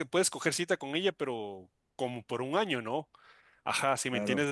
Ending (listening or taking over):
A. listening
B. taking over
A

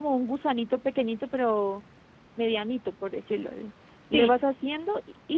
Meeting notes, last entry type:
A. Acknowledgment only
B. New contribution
A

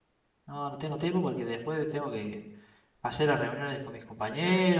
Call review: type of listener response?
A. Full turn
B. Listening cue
A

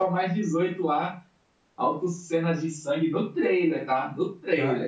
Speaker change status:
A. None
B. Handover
B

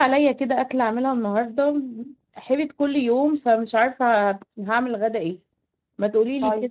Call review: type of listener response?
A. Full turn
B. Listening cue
B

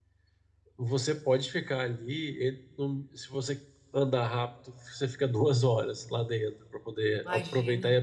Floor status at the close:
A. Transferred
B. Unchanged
B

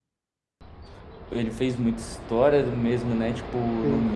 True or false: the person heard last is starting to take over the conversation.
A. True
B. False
B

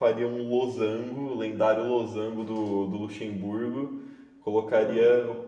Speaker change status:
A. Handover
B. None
B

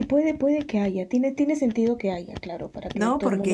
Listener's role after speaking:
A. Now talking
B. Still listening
A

